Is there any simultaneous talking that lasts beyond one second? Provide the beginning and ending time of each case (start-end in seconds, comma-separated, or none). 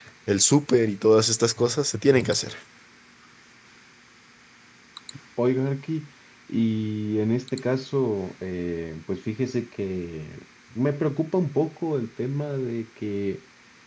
none